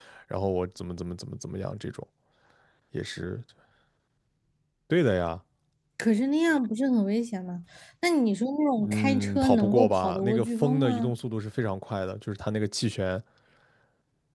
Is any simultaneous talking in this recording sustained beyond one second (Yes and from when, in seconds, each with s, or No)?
Yes, from 8.8 s